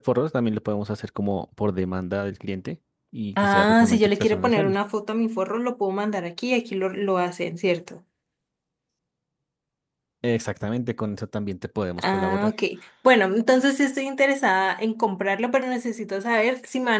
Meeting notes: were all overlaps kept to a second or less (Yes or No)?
No